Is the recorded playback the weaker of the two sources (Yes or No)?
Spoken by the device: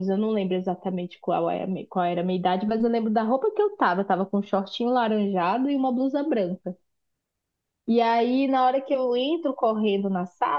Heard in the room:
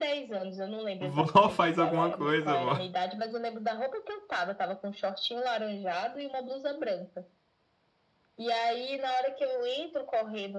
Yes